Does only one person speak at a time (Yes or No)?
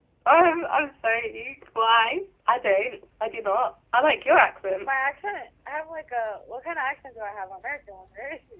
Yes